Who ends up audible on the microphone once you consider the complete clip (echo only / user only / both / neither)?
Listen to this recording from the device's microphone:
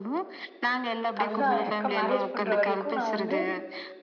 both